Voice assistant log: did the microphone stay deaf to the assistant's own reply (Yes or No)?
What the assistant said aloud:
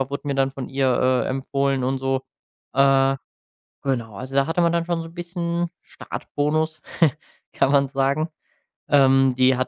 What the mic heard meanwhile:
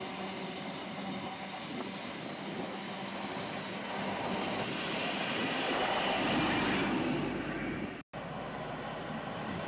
Yes